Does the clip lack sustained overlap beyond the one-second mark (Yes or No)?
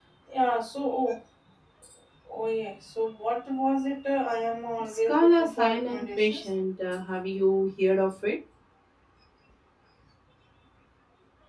No